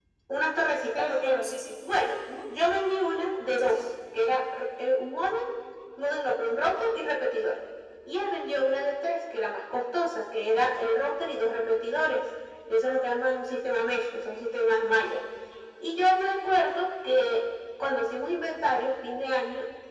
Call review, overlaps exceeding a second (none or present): none